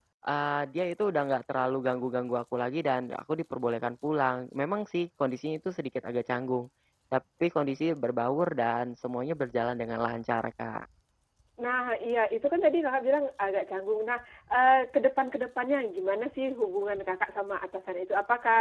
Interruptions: none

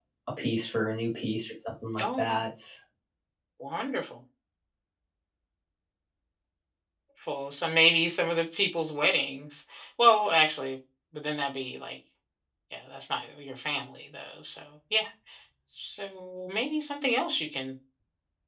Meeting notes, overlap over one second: none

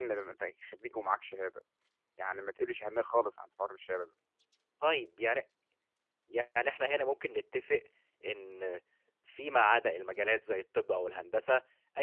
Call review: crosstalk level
none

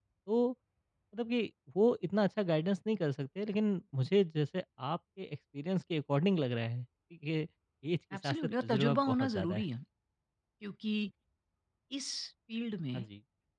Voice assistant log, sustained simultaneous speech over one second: present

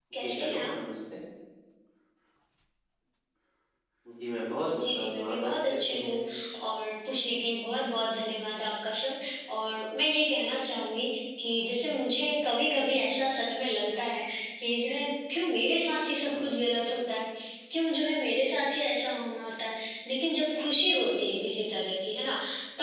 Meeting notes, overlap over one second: present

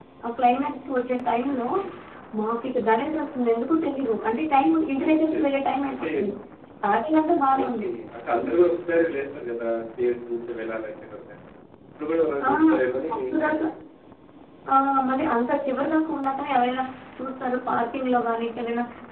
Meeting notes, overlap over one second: none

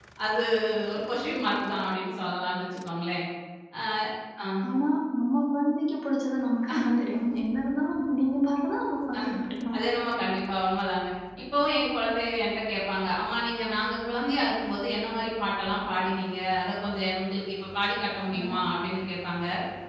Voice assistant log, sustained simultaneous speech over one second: none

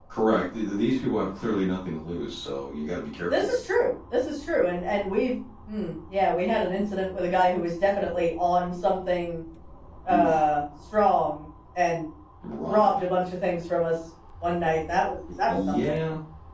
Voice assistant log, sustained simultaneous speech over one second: none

